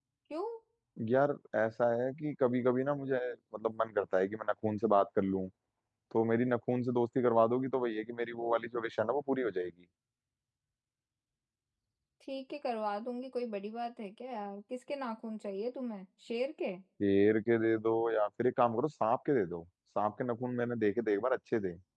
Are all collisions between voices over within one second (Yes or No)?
Yes